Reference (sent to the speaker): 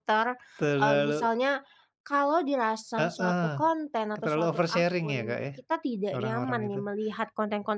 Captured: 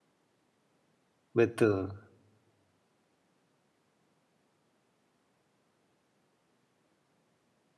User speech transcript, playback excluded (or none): Betul.